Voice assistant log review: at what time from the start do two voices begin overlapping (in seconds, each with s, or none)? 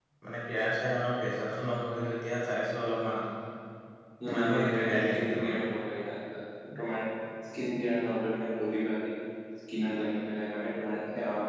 4.2 s